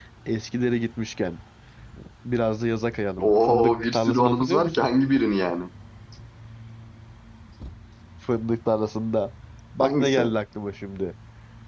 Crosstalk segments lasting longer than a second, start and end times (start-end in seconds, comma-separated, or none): 3.2-4.9